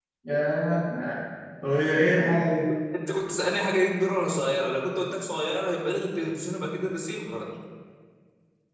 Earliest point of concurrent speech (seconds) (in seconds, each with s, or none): none